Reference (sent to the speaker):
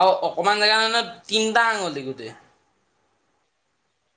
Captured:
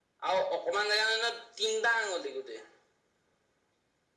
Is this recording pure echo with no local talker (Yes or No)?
Yes